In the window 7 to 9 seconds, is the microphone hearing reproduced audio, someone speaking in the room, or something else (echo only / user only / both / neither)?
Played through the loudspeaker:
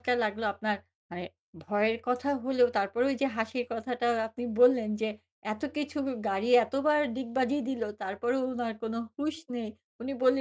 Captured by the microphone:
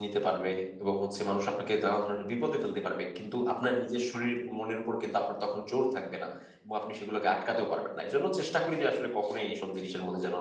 user only